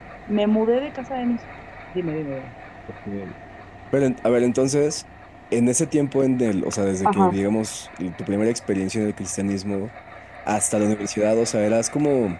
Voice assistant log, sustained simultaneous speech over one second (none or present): none